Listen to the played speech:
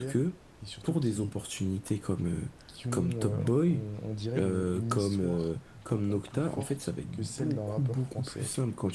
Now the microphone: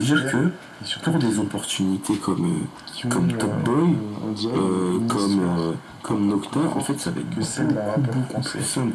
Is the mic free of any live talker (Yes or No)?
Yes